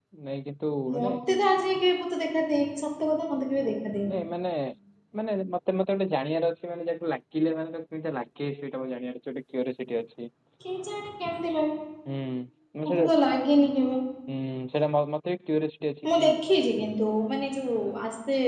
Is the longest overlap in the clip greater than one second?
No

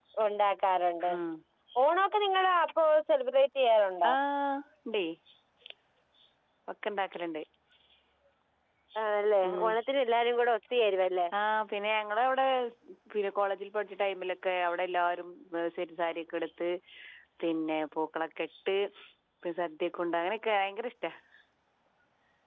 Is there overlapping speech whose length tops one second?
No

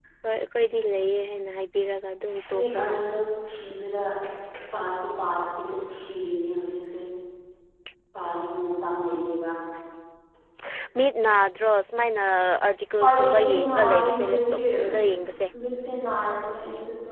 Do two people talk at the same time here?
Yes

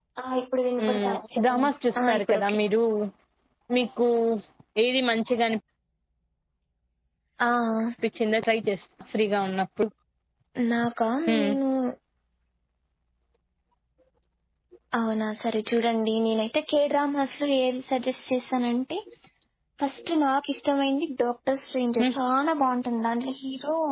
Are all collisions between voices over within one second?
No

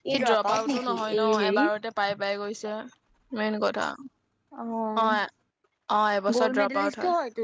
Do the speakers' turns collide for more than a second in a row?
Yes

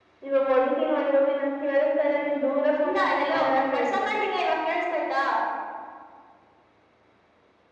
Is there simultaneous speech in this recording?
Yes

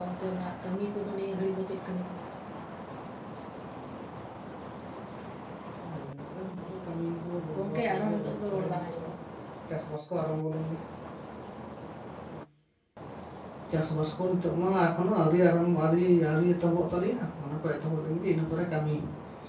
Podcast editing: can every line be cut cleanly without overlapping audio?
No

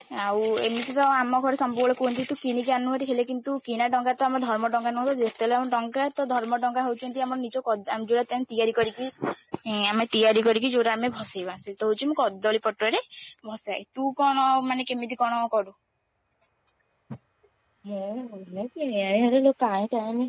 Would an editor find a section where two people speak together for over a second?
No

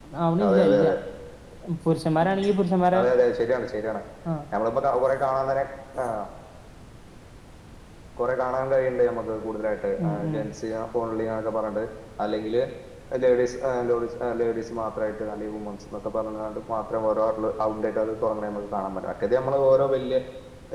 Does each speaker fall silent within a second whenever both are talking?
Yes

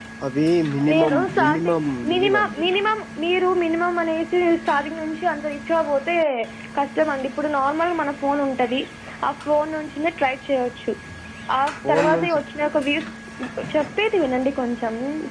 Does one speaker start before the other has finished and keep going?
Yes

